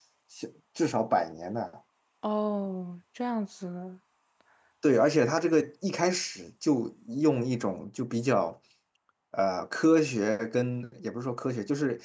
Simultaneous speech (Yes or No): No